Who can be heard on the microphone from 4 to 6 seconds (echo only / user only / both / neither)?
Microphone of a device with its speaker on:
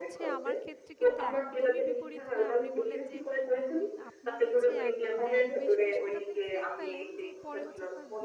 both